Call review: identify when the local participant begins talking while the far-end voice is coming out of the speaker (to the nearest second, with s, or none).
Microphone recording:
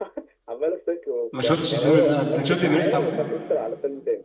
1 s